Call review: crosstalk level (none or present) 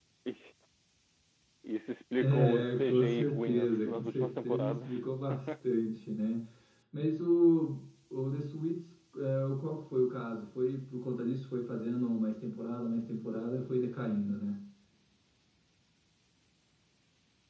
present